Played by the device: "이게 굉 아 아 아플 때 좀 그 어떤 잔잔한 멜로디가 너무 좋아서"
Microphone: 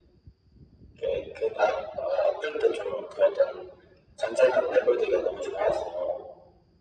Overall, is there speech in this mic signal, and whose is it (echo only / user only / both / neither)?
echo only